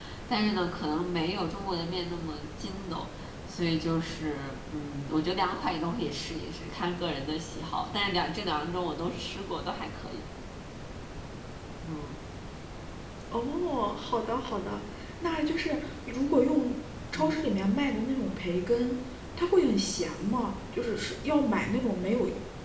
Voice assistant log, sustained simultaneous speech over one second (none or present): none